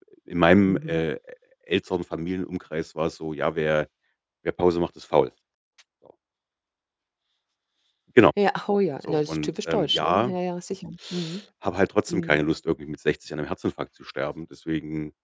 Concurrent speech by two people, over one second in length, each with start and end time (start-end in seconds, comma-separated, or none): 9.1-10.3